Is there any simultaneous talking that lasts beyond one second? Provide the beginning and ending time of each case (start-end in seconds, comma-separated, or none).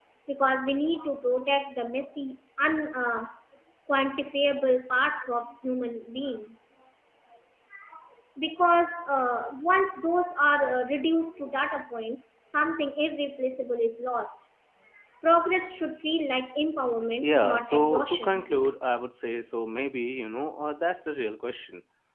17.2-18.4